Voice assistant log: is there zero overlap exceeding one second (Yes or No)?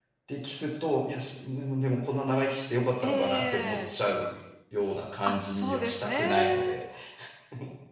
No